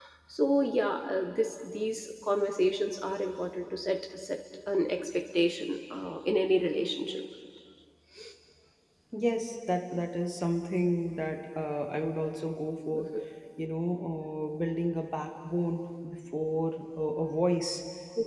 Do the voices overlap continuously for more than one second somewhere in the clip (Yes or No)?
No